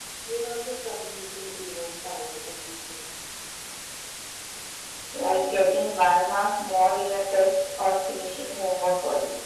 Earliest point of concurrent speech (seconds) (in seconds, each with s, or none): none